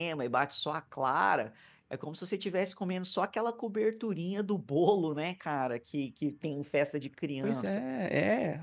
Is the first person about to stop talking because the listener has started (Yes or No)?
Yes